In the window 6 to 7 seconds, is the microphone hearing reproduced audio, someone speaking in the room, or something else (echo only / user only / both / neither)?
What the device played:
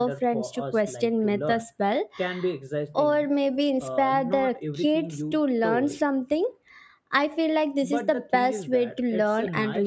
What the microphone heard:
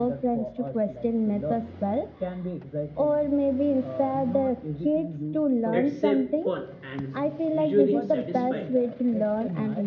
both